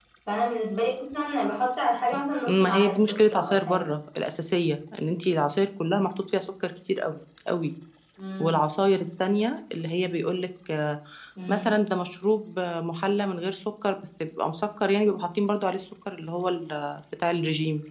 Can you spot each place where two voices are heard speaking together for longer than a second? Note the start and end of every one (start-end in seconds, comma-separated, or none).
2.5-3.9